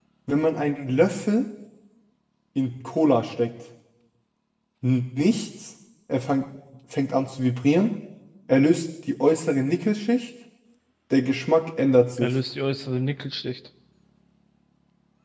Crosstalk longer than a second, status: none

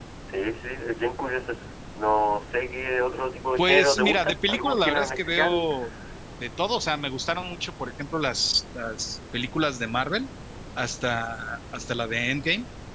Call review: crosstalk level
present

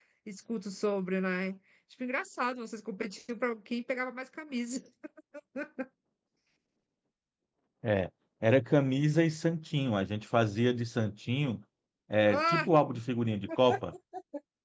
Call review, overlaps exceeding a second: none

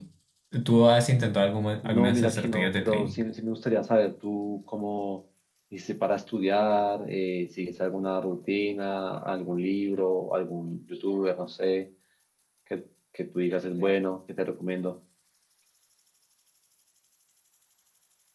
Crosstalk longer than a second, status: present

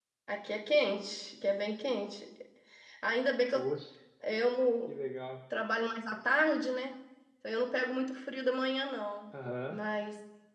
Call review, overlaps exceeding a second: none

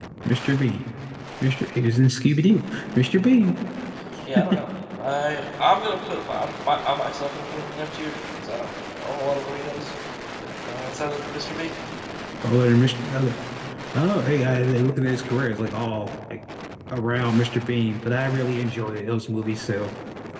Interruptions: none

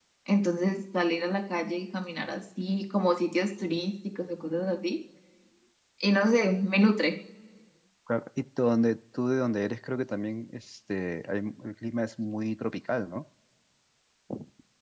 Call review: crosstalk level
none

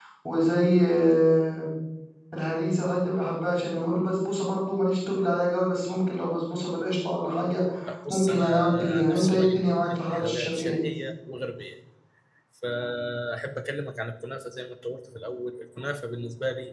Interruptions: present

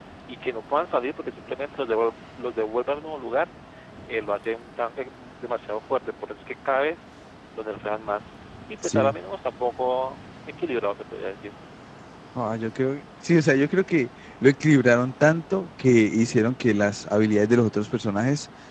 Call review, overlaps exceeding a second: none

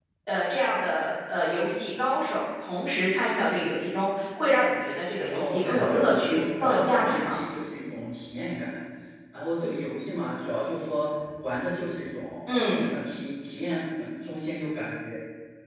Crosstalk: present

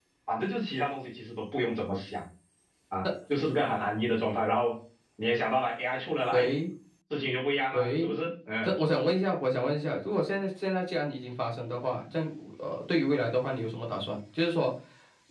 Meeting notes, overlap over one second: none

